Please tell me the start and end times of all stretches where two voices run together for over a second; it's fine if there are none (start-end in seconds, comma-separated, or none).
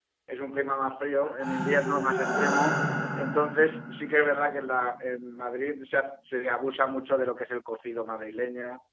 1.4-2.7